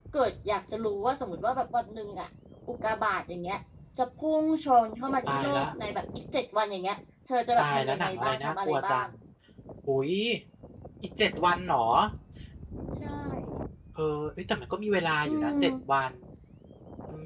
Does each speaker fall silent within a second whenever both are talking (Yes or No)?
No